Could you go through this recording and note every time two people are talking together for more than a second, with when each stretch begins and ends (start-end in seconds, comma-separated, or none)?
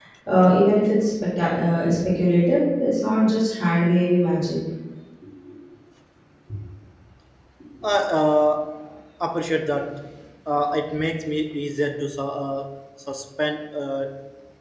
none